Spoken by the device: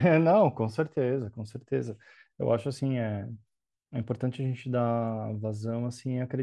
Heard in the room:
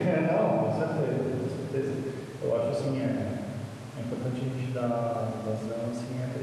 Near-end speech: none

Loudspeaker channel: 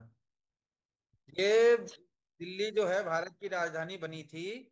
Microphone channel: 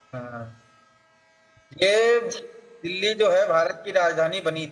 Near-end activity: none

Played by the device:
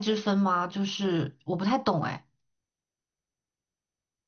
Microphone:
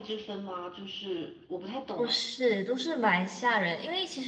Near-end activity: present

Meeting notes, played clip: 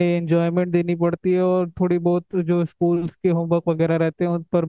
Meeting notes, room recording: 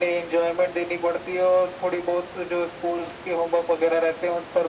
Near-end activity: none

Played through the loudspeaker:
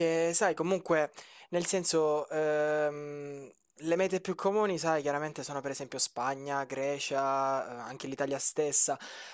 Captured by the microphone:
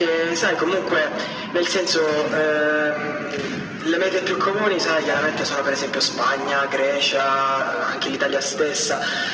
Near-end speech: none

